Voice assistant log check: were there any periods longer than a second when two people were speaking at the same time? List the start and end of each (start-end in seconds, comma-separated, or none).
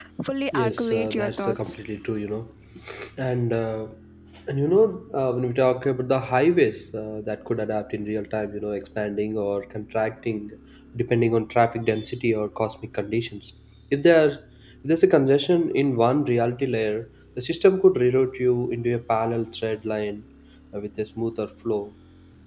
0.5-1.8